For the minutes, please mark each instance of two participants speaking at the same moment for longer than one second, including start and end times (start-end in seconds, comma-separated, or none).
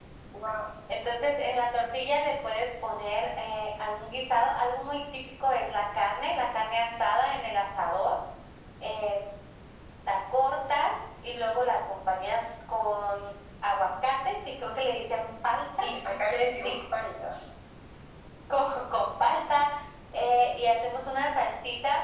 none